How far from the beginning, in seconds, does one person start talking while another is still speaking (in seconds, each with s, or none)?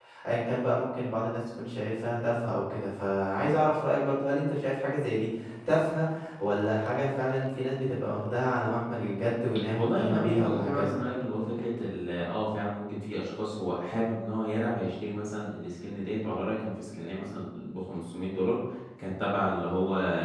9.8 s